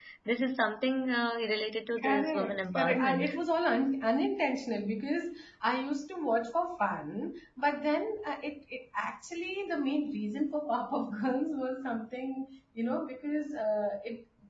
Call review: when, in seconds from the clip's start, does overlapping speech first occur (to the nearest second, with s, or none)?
2 s